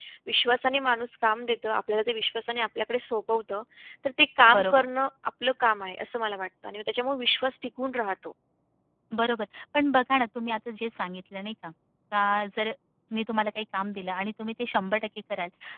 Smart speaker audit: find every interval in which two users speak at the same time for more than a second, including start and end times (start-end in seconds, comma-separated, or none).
none